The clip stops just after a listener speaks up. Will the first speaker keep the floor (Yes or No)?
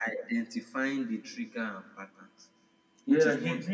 No